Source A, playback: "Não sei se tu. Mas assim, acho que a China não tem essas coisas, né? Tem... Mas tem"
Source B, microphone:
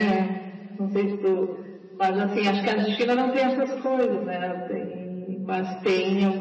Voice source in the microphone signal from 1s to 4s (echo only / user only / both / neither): echo only